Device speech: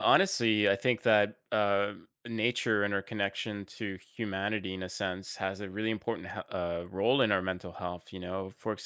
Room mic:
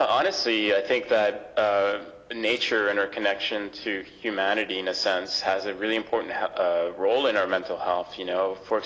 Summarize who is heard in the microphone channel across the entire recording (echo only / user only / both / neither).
echo only